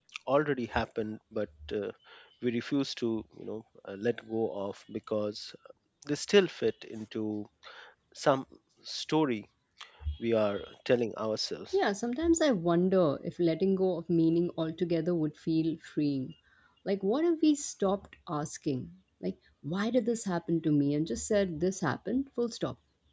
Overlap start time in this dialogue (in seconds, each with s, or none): none